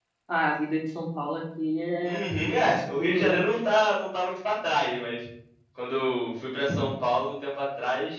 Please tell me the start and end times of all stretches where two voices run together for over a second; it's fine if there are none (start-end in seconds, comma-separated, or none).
2.0-3.4